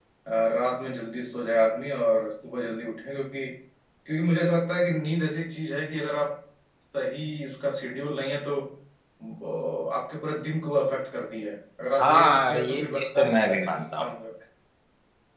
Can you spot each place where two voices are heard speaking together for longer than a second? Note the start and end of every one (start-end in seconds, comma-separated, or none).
12.0-14.0